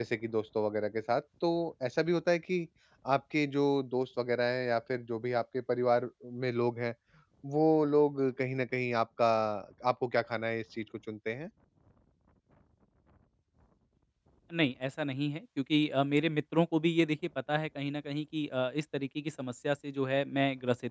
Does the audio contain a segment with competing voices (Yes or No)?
No